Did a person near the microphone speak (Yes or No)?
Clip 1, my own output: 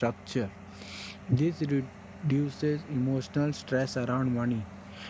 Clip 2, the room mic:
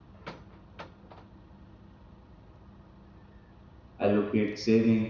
Yes